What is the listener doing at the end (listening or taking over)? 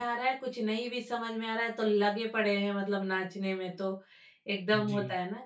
listening